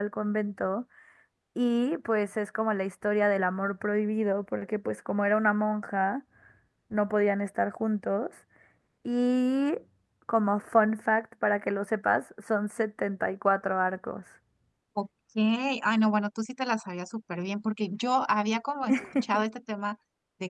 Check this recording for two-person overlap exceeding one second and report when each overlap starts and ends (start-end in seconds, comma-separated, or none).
none